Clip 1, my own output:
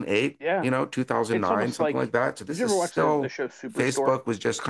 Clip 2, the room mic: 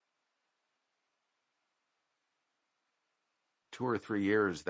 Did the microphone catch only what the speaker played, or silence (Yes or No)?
No